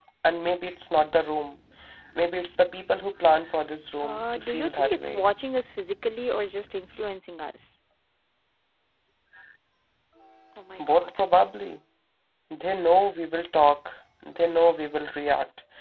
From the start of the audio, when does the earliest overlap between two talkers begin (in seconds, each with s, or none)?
4.0 s